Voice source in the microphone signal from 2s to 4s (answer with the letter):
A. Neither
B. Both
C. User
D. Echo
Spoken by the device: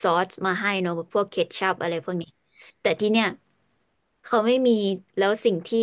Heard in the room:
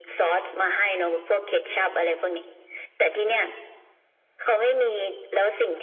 D